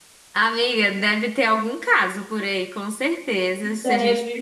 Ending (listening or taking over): listening